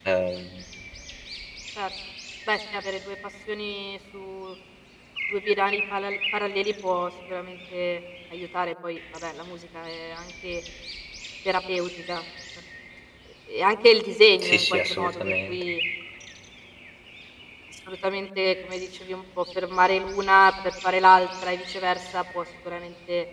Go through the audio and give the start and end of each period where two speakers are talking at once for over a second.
14.4-15.6

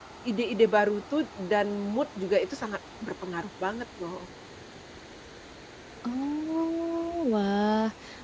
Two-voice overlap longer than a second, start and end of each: none

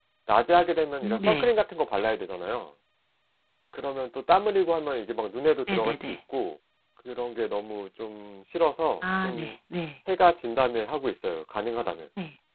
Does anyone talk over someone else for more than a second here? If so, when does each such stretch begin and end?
none

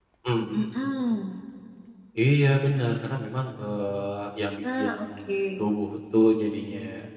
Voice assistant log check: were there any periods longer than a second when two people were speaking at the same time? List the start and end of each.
none

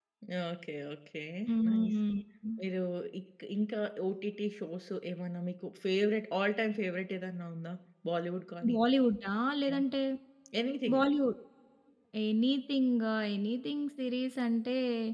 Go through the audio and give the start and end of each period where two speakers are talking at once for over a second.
none

